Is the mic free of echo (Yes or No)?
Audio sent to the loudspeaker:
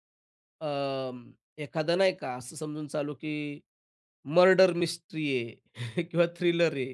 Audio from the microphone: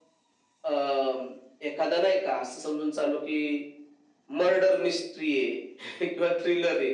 No